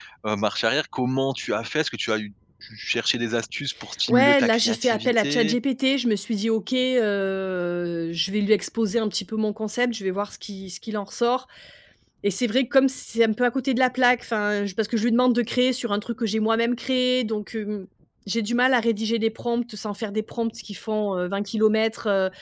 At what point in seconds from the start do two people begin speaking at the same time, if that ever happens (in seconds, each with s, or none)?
4.1 s